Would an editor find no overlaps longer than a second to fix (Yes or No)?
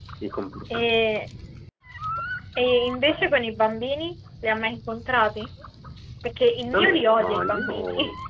No